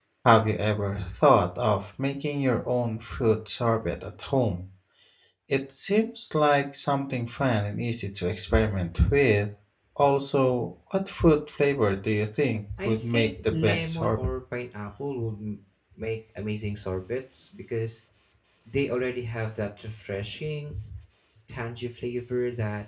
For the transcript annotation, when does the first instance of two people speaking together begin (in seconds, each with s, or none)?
12.7 s